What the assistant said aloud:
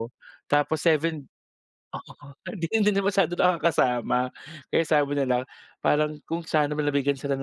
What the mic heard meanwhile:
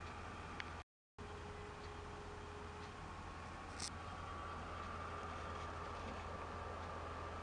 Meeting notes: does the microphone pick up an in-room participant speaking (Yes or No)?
No